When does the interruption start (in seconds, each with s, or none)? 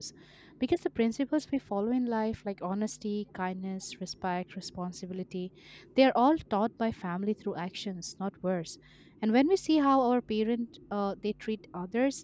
none